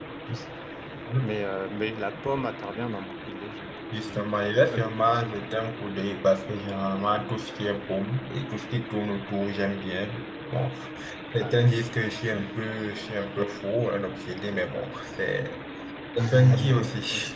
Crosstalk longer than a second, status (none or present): present